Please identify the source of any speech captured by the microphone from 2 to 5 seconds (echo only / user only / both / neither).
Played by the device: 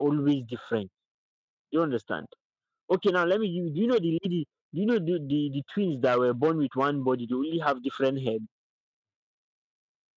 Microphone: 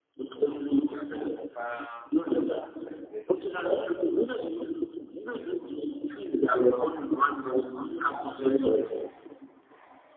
both